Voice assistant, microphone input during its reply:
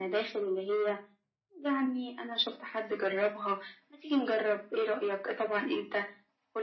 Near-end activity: none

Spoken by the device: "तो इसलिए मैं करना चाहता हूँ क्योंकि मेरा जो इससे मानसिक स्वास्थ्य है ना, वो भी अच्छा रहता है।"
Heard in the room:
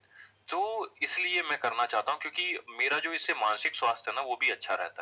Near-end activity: none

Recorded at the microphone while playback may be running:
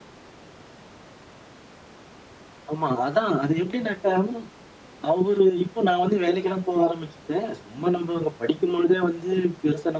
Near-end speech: none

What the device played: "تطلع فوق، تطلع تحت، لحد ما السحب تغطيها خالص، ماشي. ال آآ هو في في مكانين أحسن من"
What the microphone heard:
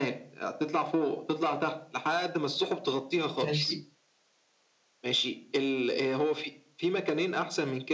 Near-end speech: present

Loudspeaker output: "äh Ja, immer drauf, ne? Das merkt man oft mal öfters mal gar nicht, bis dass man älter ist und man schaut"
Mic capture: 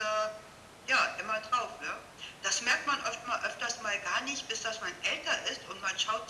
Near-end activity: none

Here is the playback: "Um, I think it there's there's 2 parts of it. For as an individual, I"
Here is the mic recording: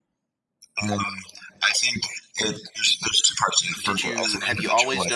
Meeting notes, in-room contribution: present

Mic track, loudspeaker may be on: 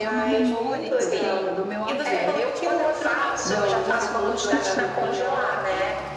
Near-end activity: present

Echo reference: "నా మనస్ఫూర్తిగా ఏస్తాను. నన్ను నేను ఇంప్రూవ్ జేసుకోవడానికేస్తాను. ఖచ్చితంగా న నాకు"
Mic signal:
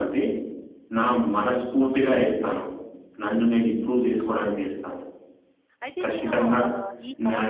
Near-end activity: present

